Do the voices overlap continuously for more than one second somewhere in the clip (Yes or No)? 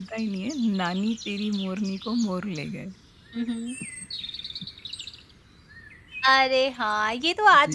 No